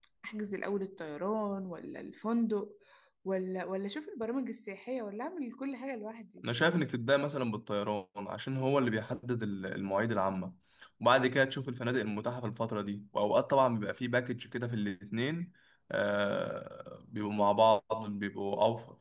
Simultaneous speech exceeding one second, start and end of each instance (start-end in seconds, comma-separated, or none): none